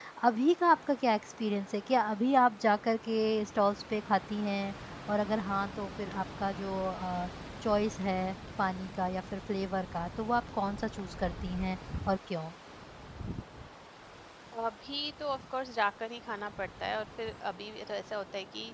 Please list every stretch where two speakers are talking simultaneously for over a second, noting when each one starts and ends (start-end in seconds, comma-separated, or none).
none